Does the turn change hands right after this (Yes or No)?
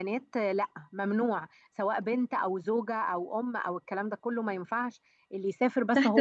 Yes